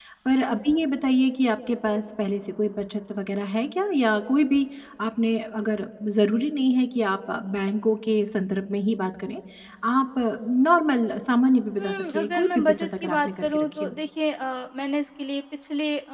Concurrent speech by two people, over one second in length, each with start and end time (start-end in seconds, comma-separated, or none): 11.8-13.9